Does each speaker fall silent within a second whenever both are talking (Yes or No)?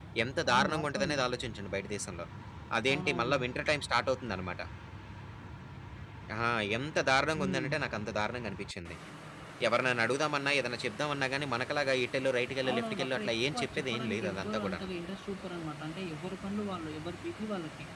No